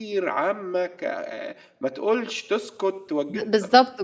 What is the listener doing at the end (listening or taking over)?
taking over